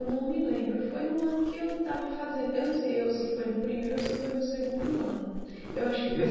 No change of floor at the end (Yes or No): No